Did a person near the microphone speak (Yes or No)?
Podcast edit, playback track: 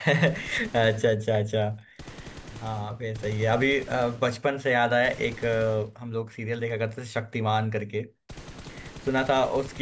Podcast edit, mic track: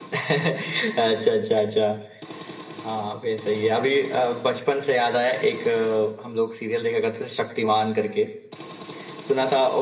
No